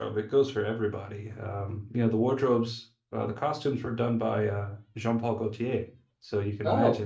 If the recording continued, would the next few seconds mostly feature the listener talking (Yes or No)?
No